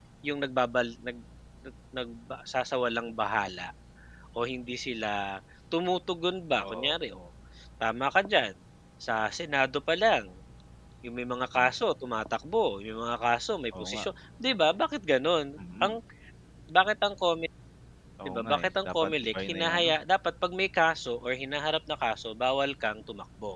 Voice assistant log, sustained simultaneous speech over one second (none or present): present